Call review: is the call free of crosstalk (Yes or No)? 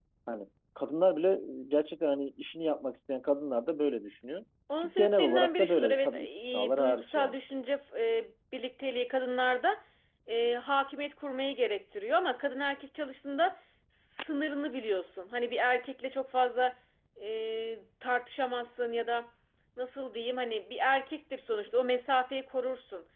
No